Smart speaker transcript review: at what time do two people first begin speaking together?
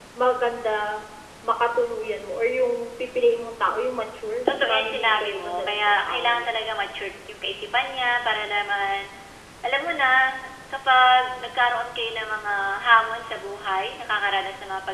4 s

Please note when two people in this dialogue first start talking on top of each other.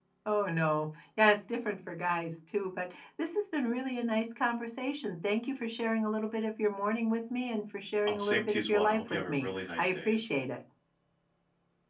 8 s

